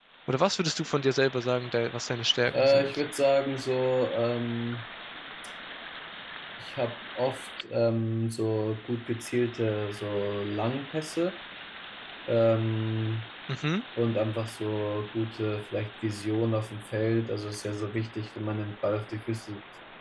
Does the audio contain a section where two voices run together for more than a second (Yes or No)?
No